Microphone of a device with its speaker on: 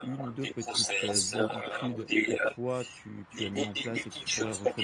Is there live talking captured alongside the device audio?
Yes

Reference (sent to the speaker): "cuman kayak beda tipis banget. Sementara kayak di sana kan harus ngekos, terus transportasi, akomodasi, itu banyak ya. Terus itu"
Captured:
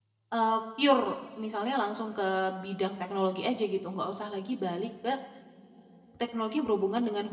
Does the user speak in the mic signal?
Yes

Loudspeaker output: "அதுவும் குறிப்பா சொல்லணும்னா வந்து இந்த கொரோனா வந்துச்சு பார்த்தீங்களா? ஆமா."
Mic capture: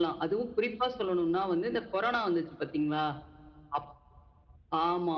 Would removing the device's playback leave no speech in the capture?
Yes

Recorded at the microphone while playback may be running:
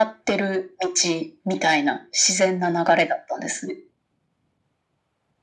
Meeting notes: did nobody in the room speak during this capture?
Yes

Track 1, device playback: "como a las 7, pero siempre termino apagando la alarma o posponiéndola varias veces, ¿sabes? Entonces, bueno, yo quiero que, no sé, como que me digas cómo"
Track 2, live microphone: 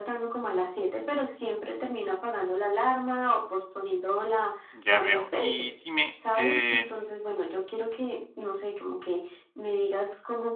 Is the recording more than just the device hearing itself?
Yes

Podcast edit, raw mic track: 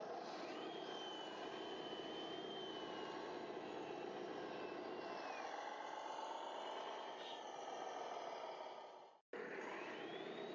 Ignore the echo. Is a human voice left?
No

